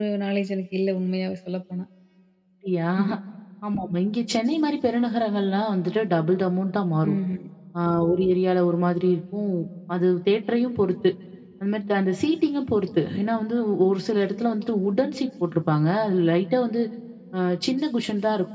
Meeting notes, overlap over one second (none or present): none